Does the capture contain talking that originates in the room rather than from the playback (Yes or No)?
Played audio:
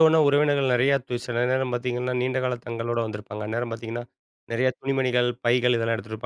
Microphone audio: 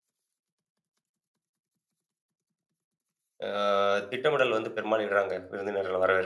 Yes